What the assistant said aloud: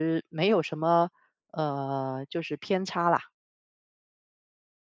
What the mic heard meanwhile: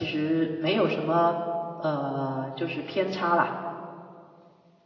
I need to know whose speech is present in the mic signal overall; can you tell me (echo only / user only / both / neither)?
echo only